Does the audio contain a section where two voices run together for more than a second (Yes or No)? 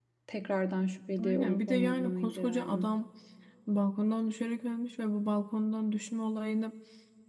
Yes